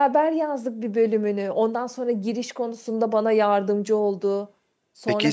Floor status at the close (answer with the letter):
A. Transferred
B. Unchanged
A